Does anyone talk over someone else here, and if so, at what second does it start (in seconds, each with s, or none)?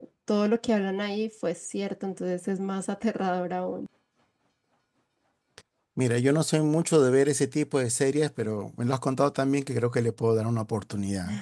none